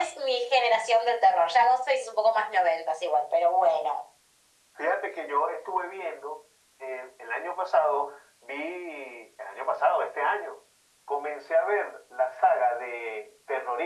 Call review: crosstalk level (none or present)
none